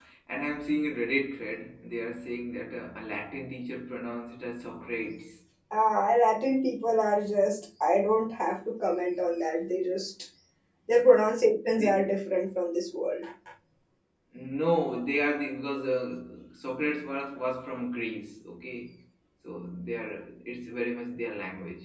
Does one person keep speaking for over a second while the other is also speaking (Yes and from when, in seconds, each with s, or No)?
No